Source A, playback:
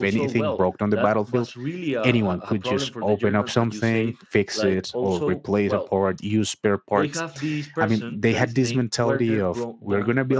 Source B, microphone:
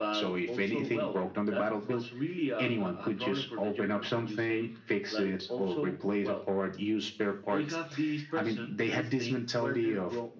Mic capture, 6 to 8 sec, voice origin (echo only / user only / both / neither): echo only